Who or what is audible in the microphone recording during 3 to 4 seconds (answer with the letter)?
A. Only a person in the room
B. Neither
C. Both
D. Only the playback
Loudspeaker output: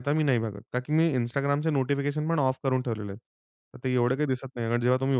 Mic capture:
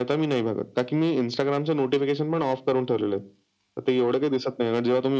D